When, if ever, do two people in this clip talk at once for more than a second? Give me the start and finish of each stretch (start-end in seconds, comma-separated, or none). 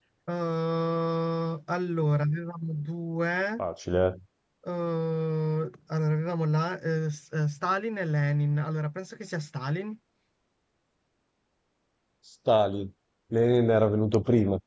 none